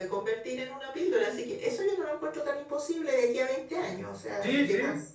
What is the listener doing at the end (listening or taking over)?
taking over